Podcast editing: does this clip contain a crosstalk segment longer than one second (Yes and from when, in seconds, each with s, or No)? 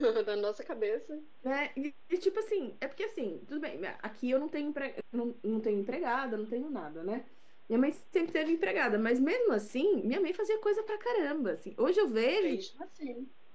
No